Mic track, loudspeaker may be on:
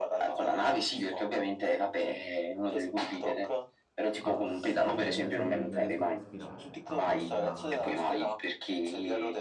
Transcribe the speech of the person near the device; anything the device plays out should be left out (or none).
altissima, cioè nel senso mi, non riesco a respirare, tanto che mi viene l'ansia.